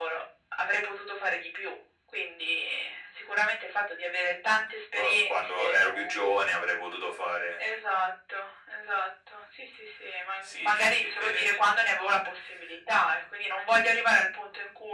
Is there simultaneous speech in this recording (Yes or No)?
Yes